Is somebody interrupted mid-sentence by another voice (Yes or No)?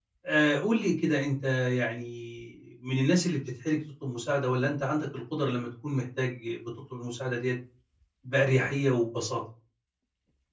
No